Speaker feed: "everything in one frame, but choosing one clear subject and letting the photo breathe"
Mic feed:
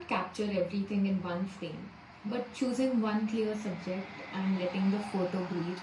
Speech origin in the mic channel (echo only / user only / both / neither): echo only